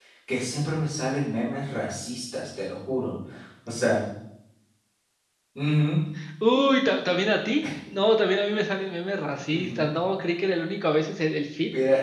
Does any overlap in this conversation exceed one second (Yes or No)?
No